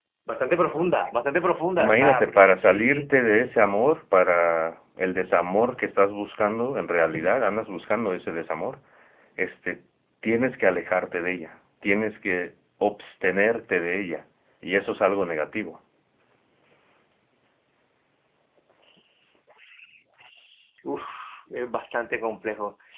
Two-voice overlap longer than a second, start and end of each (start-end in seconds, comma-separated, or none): 1.8-3.1